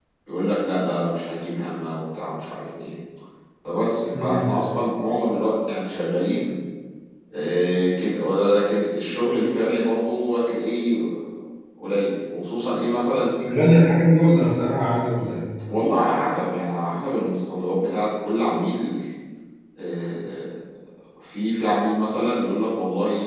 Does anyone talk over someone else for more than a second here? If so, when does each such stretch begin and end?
none

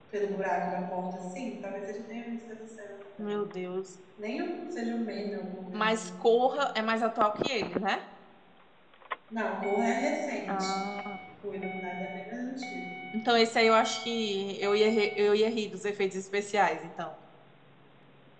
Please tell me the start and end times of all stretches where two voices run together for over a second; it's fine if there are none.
none

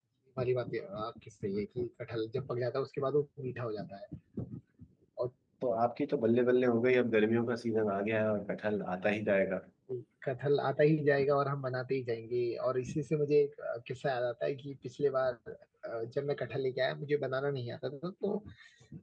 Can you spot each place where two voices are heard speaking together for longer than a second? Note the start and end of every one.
none

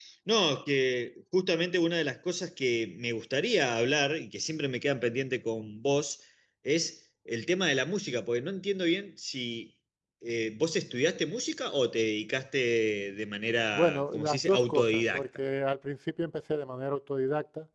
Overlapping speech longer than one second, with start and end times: 13.7-15.2

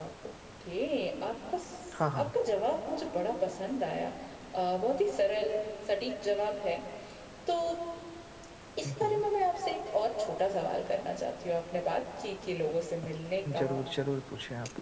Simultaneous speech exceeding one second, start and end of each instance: none

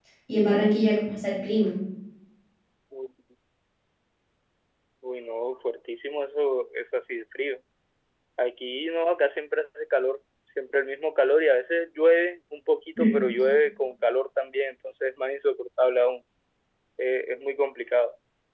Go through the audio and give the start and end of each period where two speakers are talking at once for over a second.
none

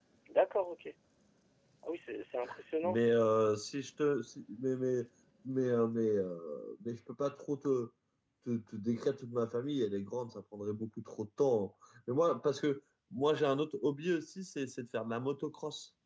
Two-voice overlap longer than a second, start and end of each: none

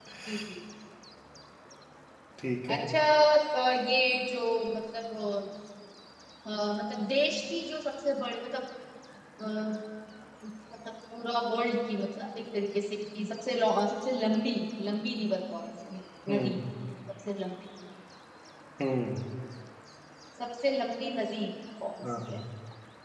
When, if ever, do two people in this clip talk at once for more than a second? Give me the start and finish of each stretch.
none

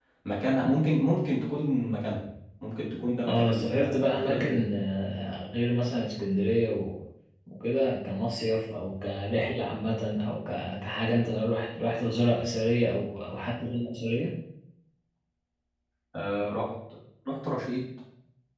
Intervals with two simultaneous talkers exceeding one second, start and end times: 3.3-4.7

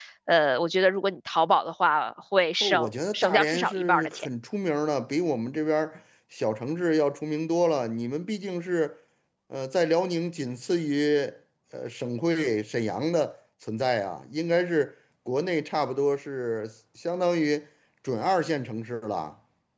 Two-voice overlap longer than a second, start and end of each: 2.6-4.3

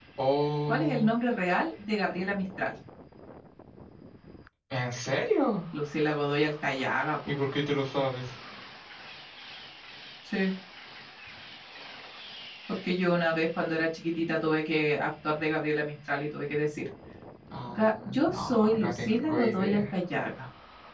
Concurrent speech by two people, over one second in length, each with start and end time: 17.7-19.8

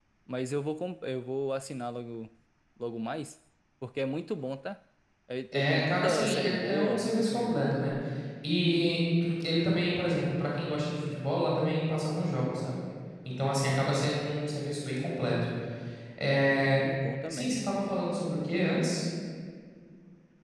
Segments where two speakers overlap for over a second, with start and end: 5.5-7.8

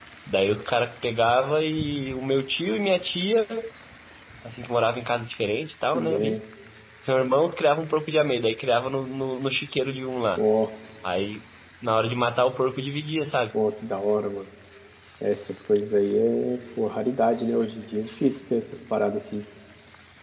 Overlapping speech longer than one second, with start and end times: none

